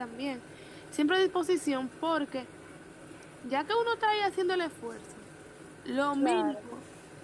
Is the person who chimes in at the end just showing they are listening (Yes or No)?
Yes